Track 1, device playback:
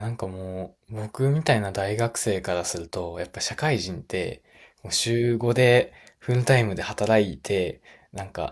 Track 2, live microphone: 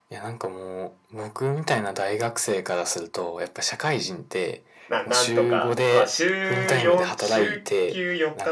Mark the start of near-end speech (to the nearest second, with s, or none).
5 s